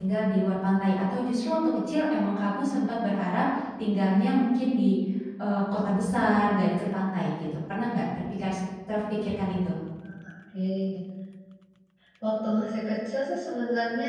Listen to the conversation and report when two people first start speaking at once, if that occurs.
none

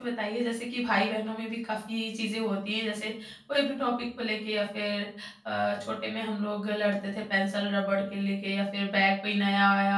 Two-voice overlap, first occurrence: none

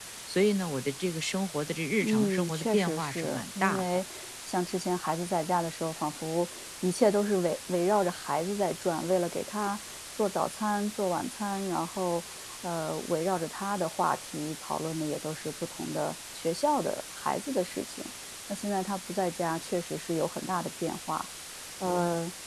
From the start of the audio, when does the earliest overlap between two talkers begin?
2.0 s

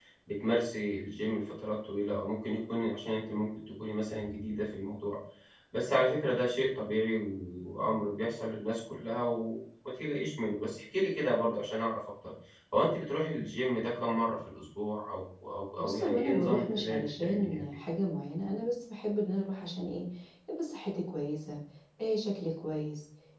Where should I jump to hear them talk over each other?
15.8 s

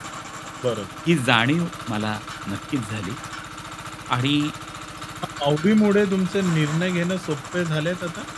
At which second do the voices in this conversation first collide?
none

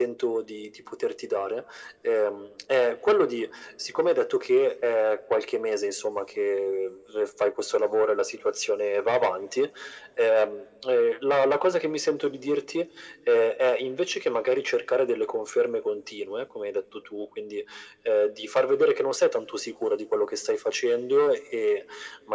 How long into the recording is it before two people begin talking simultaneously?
none

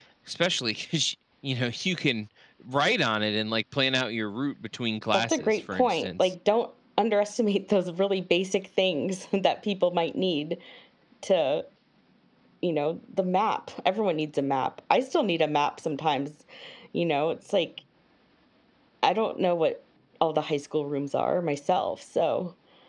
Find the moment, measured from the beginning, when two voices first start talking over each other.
5.1 s

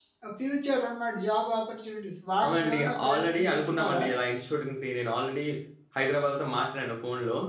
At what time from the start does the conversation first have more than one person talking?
2.4 s

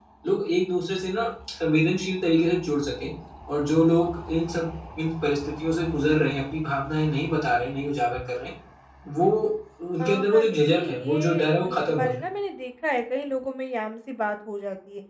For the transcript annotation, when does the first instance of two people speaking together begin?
10.0 s

